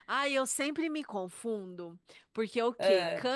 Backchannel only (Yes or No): Yes